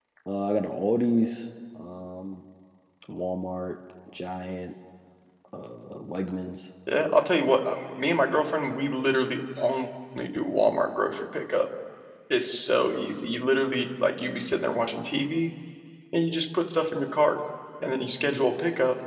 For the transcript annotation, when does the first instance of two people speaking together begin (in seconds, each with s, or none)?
none